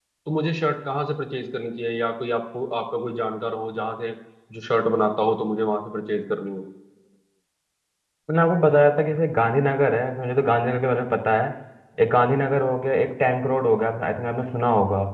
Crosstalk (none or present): none